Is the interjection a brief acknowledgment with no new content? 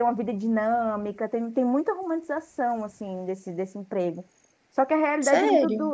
Yes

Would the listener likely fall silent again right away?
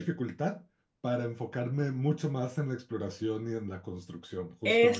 No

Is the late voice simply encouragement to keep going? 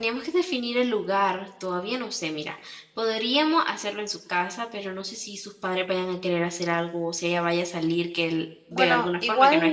No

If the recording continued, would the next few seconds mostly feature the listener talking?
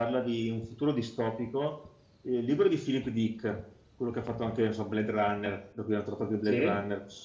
No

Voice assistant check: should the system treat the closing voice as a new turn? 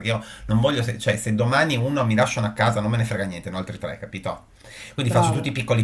No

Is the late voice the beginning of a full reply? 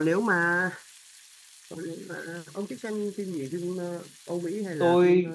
Yes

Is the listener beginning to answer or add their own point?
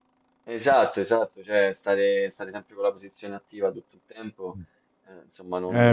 Yes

